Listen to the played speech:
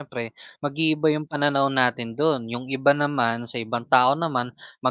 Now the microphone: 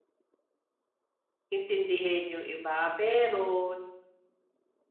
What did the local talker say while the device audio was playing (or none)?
intindihin yung iba. Pero